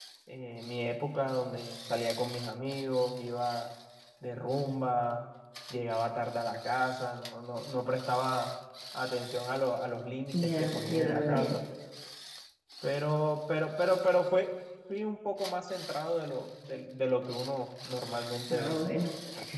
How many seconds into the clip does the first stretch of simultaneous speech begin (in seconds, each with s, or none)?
10.3 s